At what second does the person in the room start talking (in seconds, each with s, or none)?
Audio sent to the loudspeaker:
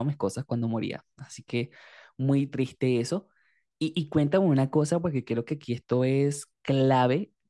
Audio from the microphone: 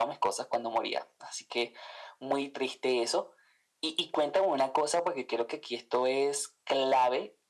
none